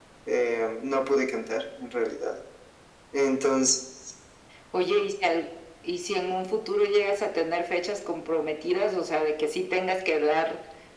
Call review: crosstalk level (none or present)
none